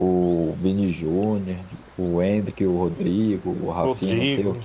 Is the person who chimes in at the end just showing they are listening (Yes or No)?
Yes